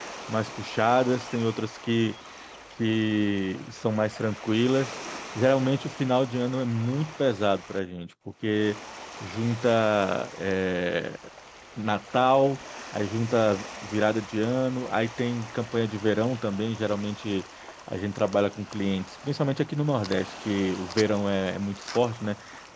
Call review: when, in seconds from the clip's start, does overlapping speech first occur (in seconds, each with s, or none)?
none